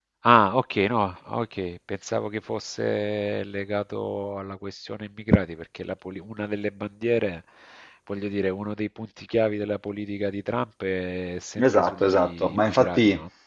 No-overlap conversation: No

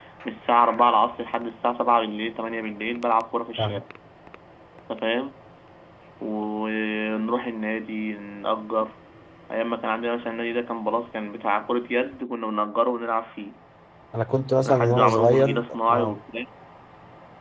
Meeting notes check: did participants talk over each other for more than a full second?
Yes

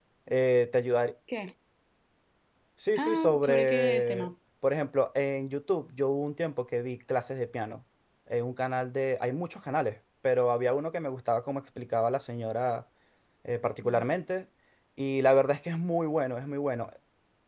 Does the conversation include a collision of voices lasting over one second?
Yes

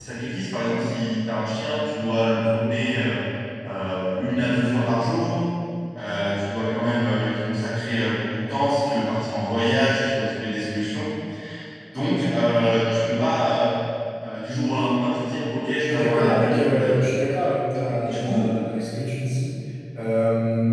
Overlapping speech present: Yes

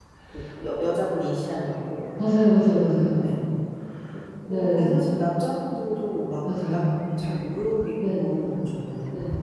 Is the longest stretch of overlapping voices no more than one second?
Yes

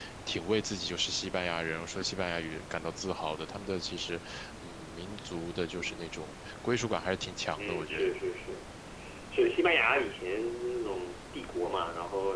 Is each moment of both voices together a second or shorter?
Yes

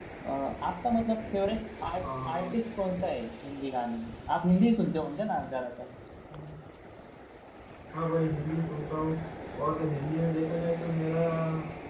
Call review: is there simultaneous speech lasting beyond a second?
No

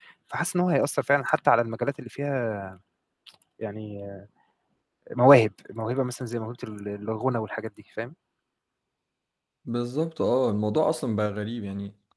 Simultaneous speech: No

